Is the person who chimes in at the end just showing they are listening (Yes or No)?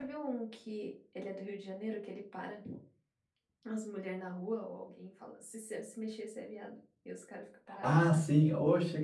No